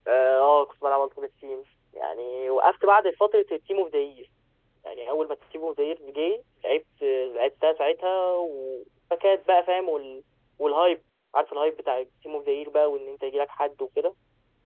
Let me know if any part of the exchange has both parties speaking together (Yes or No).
No